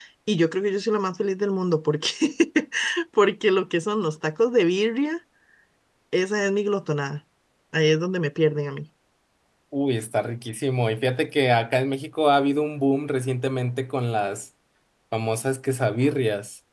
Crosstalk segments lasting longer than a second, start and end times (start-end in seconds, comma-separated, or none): none